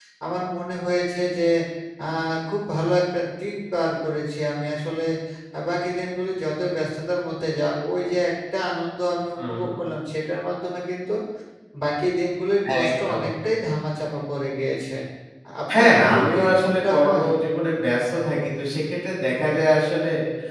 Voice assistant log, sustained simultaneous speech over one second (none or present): present